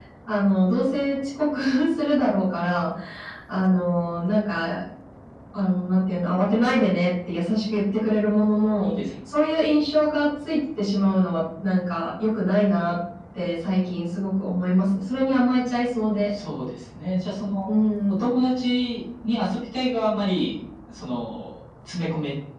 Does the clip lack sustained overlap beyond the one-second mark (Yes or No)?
Yes